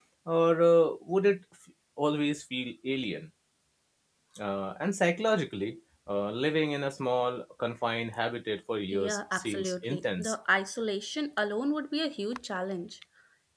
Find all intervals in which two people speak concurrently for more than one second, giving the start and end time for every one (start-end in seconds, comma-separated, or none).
8.9-10.4